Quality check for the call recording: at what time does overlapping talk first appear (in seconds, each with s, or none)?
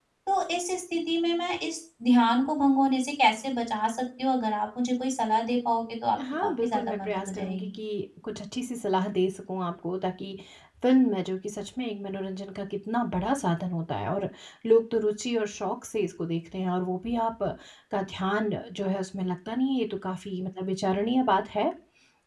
6.2 s